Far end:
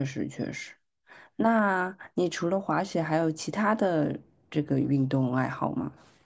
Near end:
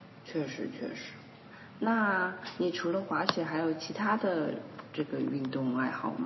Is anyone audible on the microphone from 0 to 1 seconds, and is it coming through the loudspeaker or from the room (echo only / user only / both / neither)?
echo only